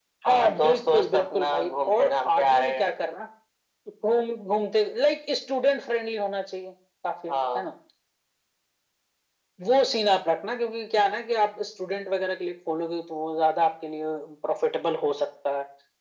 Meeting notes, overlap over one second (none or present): present